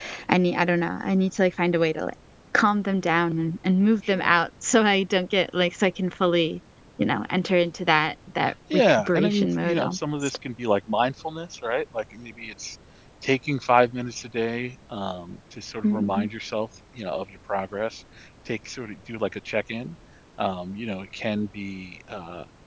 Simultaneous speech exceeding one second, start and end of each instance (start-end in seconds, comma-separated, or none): 8.7-10.4